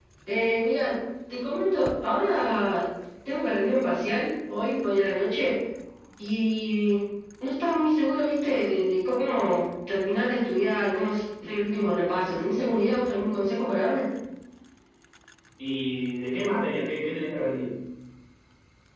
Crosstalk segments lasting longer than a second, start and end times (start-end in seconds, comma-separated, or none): none